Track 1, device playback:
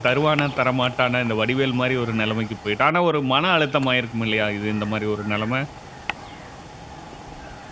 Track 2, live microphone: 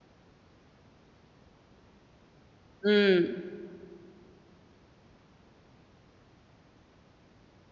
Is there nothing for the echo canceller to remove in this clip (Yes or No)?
Yes